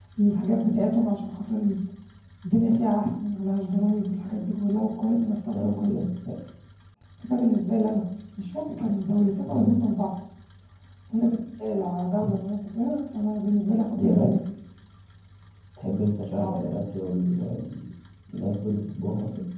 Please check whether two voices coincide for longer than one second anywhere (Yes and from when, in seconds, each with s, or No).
No